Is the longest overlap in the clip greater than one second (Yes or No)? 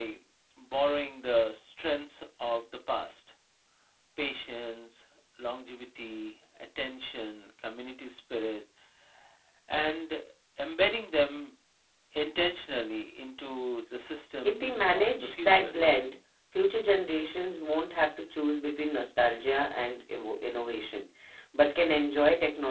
Yes